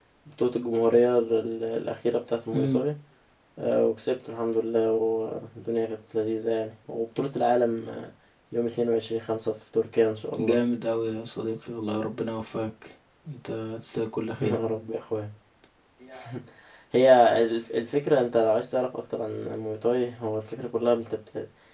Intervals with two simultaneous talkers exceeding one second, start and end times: none

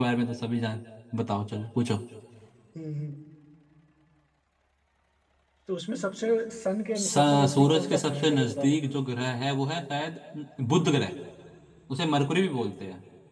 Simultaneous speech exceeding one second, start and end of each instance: 7.0-8.8

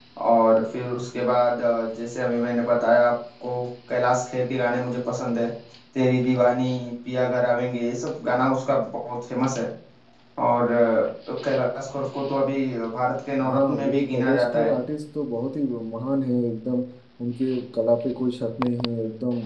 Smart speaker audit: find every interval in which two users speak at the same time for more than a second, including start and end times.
13.4-14.7

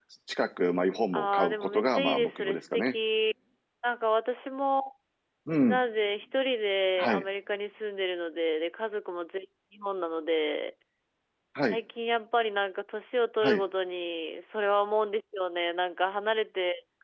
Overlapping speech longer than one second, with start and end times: 1.1-2.9

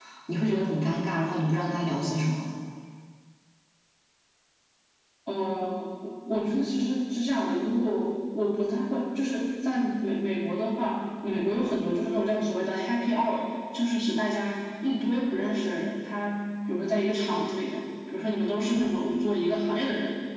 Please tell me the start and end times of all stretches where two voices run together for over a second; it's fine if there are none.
none

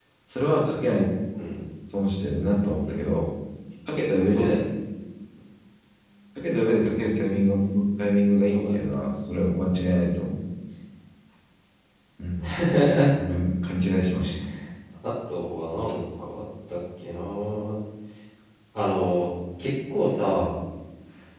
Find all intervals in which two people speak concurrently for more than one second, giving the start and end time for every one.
none

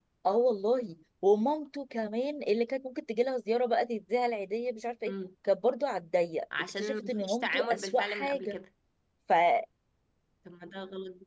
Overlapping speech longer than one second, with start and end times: 6.6-8.6

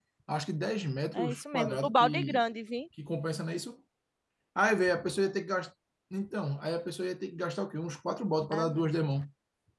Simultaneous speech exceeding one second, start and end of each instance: 1.1-2.4

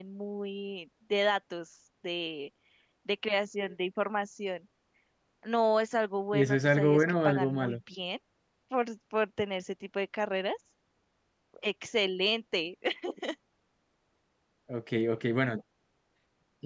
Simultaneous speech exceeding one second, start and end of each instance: 6.3-7.8

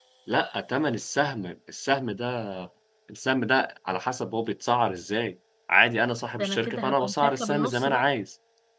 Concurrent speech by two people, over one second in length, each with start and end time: 6.4-8.1

